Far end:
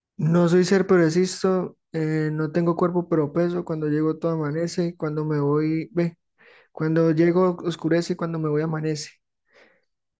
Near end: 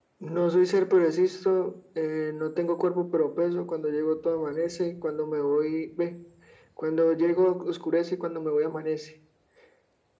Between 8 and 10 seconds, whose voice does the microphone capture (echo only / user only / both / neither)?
echo only